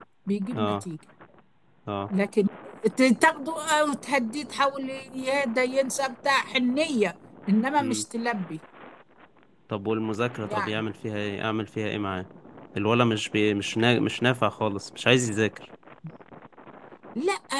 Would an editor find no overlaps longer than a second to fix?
Yes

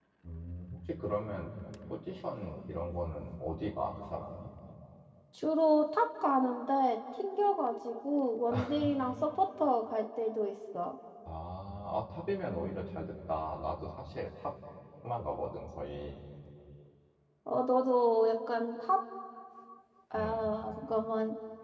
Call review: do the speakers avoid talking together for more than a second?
Yes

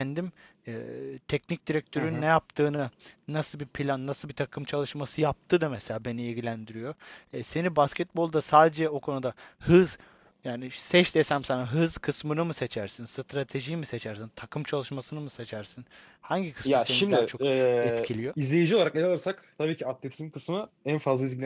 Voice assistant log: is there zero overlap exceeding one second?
No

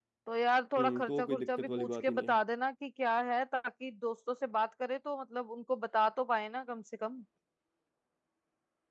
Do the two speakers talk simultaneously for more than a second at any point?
Yes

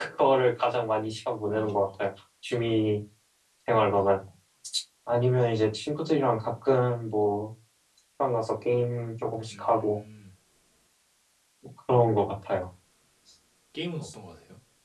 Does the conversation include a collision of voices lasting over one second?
No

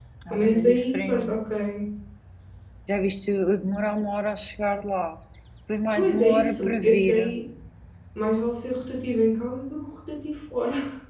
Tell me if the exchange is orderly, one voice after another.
No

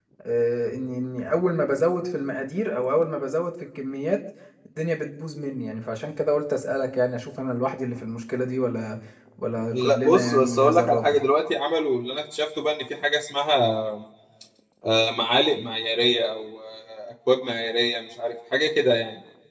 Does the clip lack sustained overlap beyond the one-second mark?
No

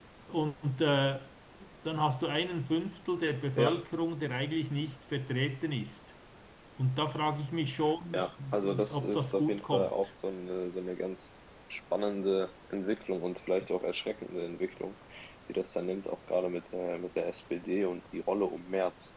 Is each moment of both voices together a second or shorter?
No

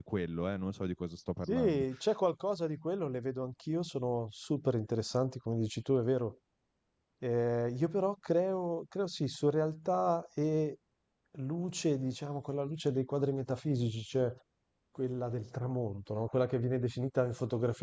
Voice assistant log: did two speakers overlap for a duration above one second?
No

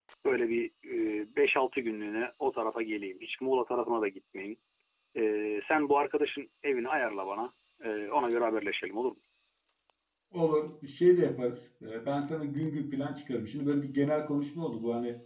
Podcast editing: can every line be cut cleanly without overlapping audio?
Yes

